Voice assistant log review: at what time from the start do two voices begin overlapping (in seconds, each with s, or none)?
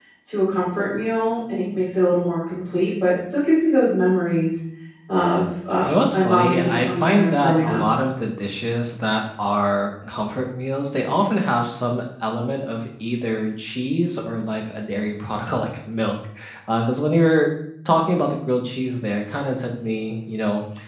5.8 s